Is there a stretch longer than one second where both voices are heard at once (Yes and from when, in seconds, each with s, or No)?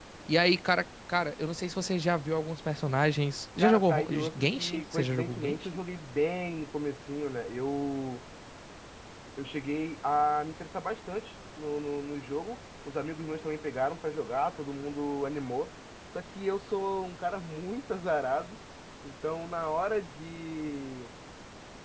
Yes, from 3.6 s